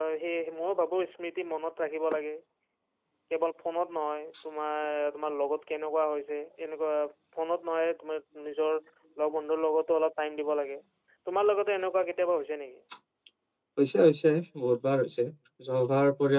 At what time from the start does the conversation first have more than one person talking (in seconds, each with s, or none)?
none